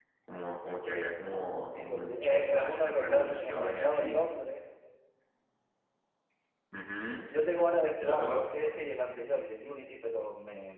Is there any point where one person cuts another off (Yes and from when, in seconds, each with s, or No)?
Yes, from 1.7 s